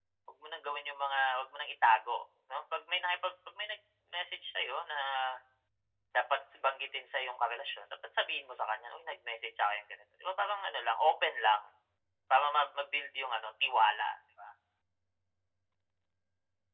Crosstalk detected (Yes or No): No